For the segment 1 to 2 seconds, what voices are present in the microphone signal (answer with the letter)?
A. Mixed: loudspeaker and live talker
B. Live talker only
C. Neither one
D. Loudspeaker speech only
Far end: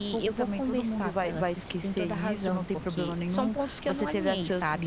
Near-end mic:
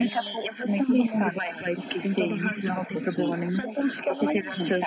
D